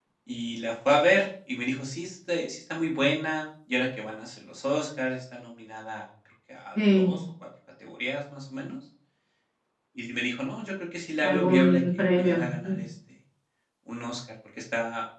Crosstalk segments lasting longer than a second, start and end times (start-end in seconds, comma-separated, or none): 11.2-12.8